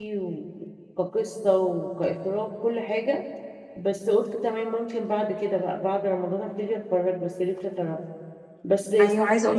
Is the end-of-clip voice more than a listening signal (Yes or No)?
Yes